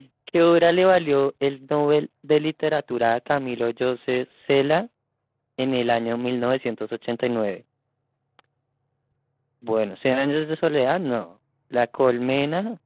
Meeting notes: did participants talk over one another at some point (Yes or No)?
No